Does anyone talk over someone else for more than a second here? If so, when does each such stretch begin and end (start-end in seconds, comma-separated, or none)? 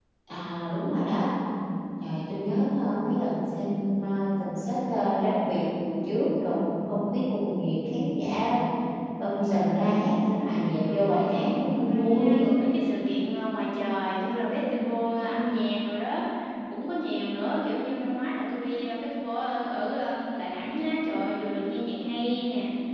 9.8-12.2